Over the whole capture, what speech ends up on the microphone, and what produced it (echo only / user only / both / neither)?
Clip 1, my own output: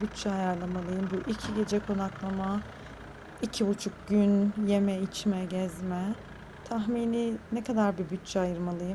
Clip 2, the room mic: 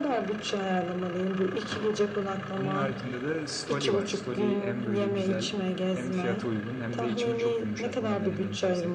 both